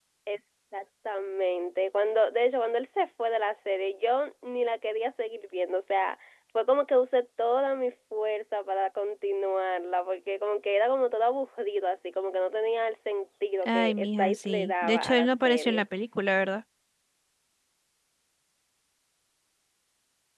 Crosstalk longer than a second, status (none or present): present